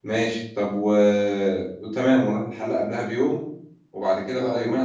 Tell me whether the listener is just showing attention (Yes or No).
Yes